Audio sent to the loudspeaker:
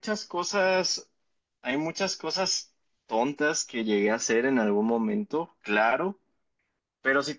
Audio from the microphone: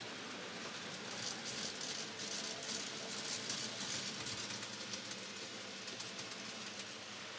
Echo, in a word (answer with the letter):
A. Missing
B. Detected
A